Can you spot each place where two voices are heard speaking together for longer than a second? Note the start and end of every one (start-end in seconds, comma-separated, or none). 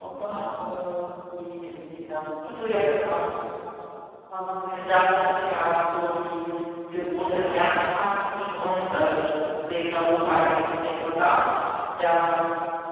none